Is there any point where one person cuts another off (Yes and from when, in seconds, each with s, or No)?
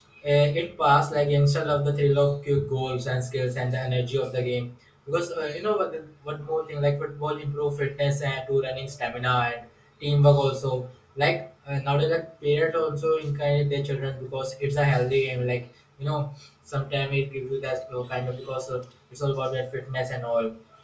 No